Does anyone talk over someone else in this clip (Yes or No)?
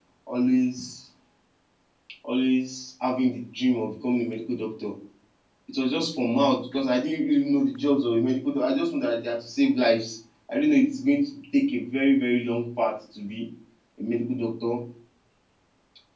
No